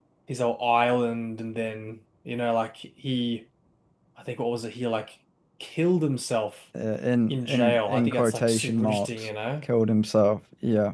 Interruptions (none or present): present